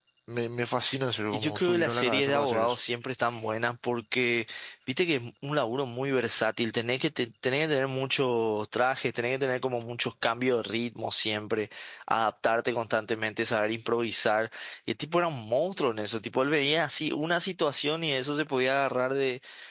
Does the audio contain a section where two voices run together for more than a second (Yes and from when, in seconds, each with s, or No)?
Yes, from 1.3 s